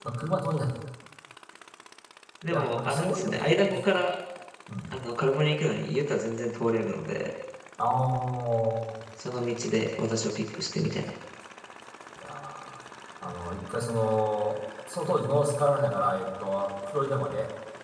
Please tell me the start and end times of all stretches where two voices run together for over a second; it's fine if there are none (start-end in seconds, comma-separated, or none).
2.5-3.8